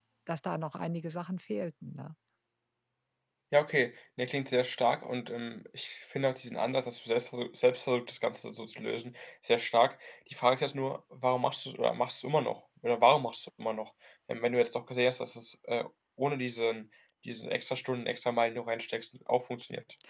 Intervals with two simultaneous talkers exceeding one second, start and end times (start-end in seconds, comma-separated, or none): none